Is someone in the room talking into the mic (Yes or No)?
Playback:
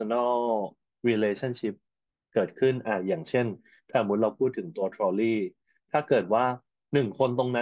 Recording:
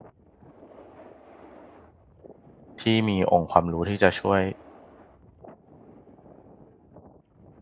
Yes